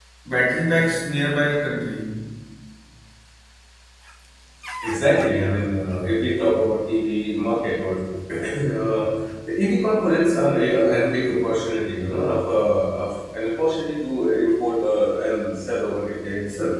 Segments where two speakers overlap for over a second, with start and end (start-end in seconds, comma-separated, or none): none